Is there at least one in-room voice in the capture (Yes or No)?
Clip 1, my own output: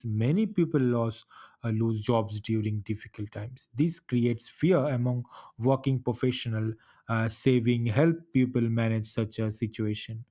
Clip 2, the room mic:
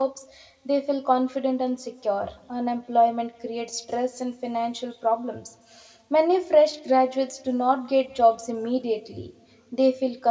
Yes